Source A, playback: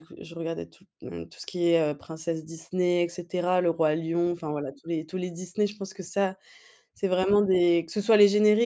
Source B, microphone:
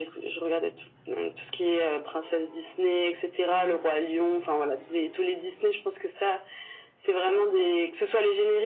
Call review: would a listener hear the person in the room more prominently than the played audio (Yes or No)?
No